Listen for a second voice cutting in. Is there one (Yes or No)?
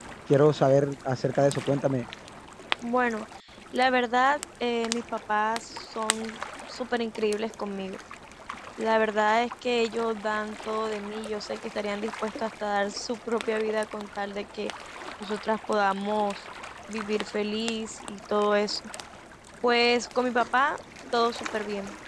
No